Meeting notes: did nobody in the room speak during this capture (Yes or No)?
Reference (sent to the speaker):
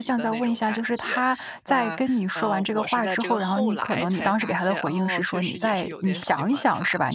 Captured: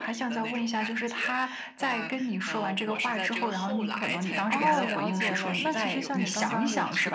No